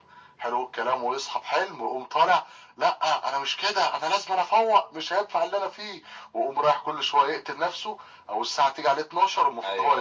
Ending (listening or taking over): taking over